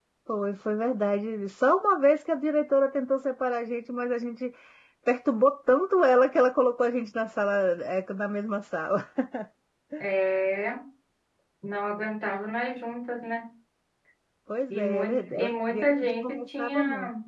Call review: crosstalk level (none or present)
present